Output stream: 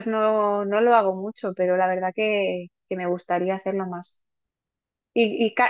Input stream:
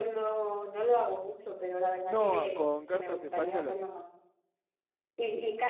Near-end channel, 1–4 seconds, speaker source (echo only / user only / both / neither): both